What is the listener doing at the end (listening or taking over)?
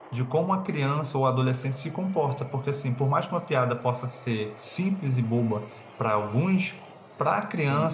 listening